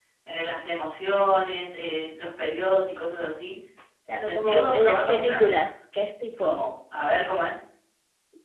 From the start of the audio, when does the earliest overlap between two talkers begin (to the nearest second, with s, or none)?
4 s